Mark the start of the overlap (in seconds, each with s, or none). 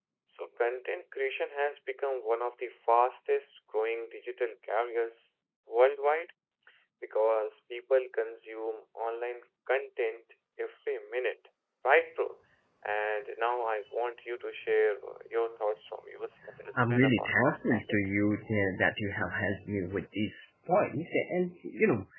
16.8 s